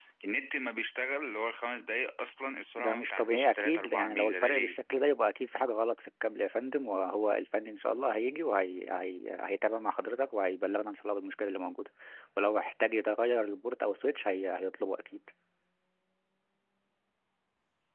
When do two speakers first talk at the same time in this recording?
3 s

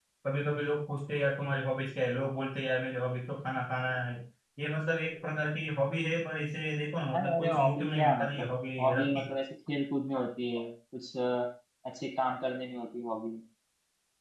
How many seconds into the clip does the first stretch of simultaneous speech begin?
7 s

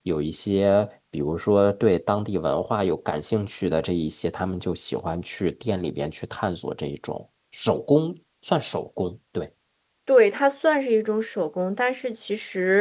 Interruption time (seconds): none

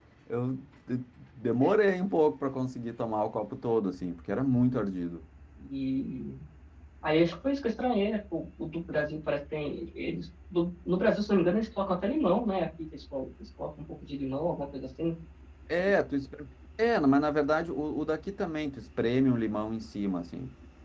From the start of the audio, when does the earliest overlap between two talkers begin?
none

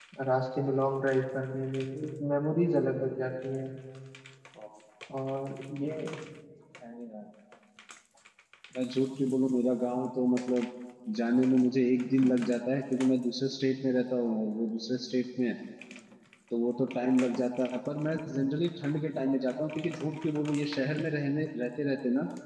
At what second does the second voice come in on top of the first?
none

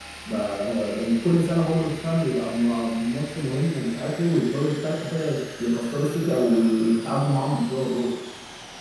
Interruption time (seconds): none

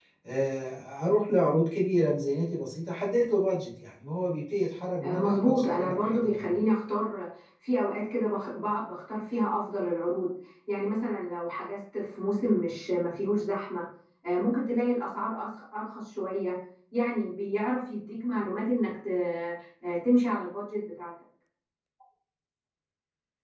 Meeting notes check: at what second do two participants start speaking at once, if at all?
5 s

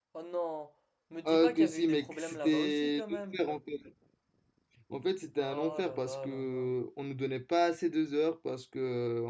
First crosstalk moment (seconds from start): 1 s

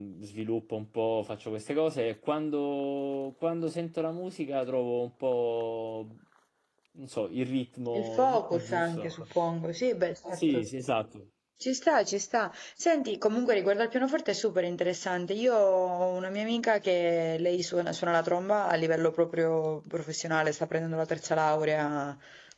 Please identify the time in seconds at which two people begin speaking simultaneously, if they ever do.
8 s

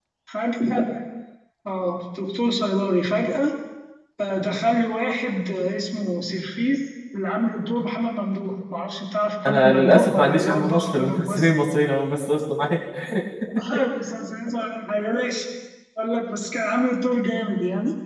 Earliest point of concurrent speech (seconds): 9 s

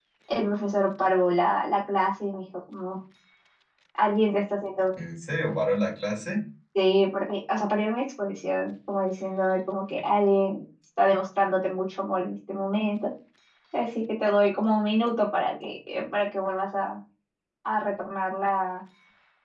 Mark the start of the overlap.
none

